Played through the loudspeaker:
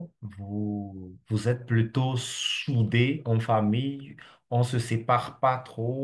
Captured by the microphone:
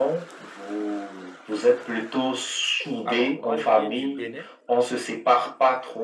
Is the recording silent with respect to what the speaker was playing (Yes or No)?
No